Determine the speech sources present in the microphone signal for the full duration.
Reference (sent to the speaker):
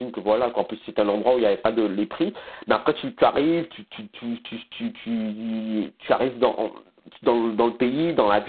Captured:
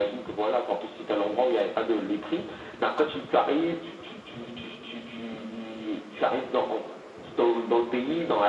echo only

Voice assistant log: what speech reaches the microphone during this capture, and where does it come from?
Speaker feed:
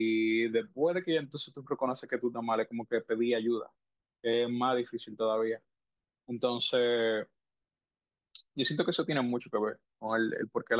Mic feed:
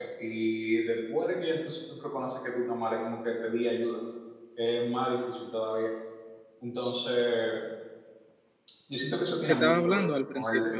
both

